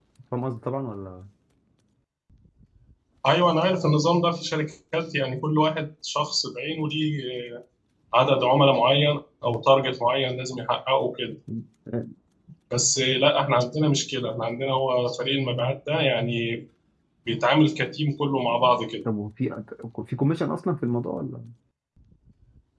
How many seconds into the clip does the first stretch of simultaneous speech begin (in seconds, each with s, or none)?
none